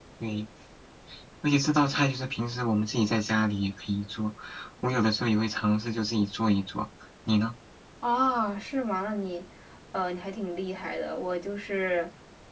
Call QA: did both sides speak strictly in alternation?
Yes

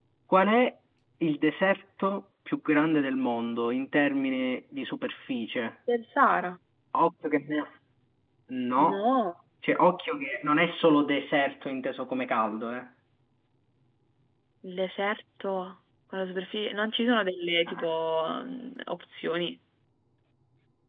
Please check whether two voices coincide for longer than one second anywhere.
No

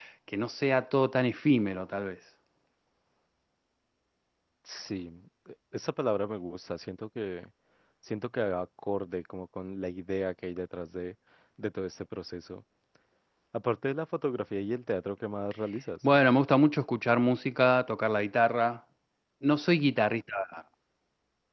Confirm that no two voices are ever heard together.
Yes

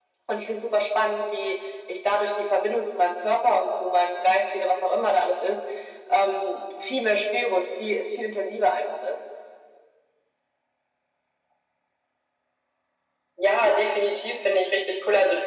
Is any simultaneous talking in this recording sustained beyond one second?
No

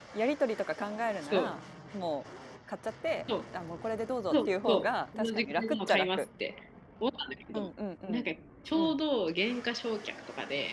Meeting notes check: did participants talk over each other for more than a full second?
Yes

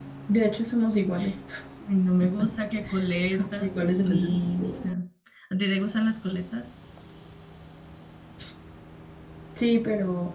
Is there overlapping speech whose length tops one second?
Yes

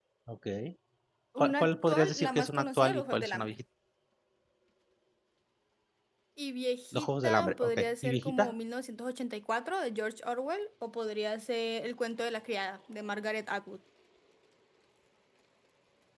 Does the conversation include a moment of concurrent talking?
Yes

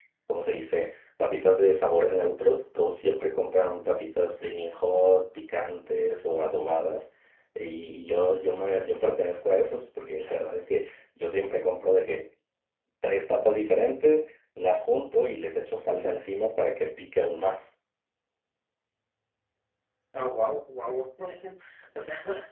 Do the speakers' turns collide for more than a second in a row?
No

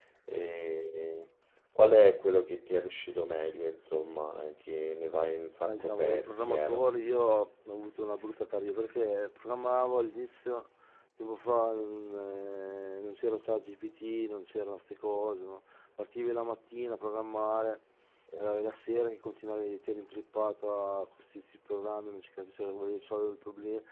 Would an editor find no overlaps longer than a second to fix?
No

